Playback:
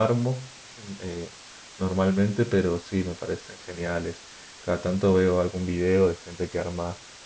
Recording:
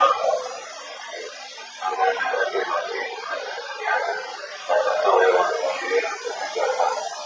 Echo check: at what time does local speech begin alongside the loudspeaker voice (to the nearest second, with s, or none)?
none